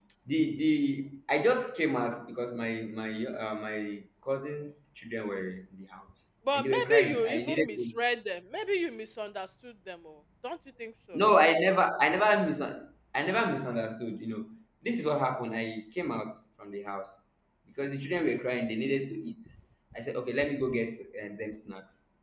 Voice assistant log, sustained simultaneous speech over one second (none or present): present